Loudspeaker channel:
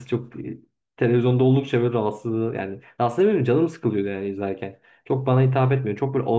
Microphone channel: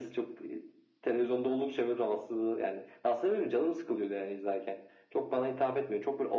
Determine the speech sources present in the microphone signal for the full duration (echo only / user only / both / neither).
echo only